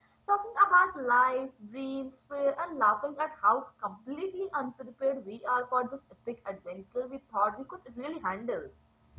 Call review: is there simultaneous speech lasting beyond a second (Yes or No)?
No